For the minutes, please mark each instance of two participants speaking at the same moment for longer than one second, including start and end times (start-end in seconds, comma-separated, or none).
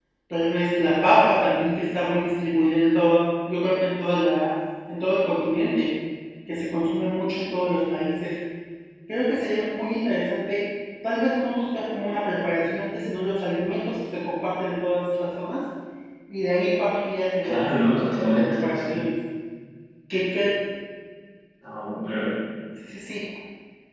17.4-19.0